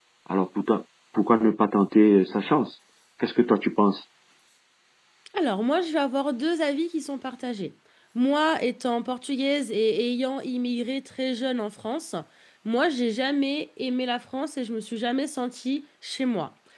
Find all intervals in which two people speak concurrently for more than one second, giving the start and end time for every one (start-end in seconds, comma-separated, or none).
none